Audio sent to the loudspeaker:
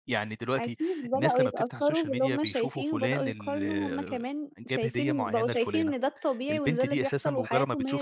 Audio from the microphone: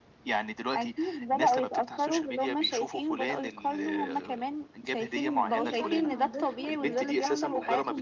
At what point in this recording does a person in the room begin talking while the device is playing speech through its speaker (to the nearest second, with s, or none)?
6 s